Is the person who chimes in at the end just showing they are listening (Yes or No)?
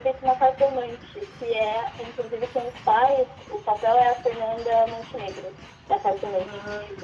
No